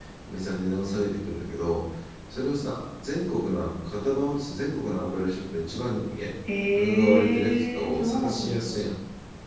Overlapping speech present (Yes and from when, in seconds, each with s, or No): Yes, from 6.7 s